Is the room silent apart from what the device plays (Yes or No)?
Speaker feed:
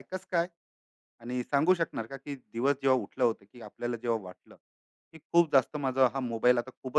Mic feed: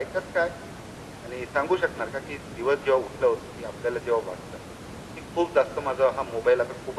Yes